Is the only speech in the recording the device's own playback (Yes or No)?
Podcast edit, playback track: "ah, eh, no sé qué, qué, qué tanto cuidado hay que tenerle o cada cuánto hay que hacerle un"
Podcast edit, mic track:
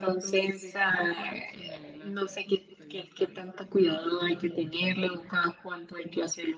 No